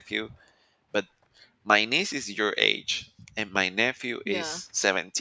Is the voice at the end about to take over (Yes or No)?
No